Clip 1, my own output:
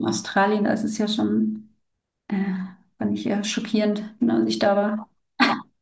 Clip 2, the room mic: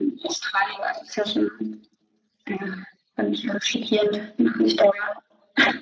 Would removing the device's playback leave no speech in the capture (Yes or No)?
Yes